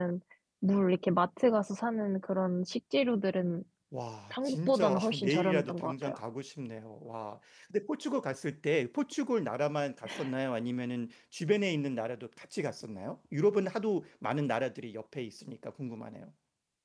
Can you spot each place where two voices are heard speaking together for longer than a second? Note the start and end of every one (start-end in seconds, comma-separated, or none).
4.3-6.2